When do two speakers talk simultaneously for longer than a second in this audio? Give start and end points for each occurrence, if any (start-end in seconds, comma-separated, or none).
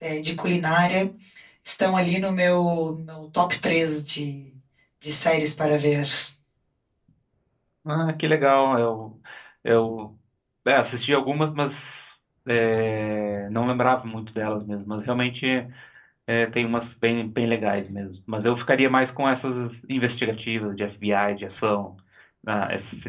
none